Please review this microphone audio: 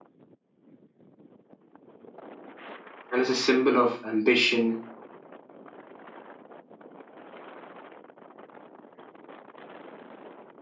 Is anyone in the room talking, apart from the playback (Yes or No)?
Yes